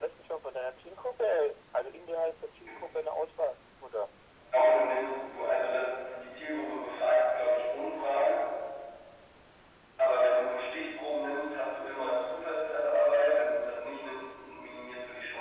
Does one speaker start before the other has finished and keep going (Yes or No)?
No